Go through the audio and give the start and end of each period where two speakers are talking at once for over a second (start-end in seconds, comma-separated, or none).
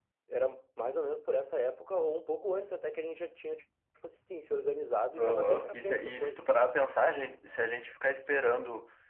5.2-6.4